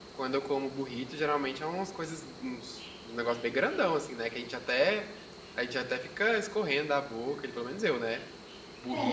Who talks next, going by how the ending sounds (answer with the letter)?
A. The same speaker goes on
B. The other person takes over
A